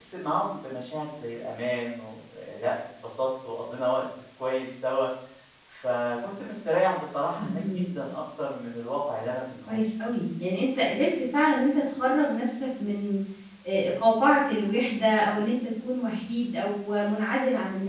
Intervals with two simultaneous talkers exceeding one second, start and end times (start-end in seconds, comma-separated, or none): none